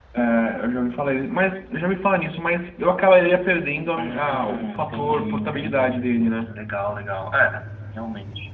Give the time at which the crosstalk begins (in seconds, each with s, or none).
4.0 s